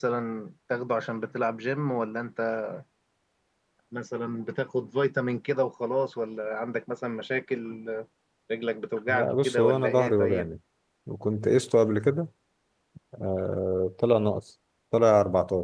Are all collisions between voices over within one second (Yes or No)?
No